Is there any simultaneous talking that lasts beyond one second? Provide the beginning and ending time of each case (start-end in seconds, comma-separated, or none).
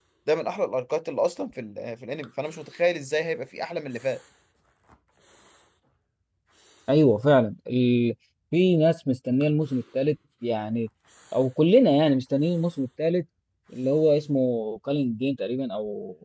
none